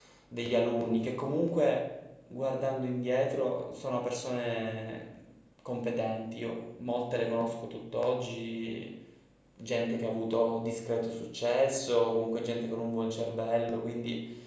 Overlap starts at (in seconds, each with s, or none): none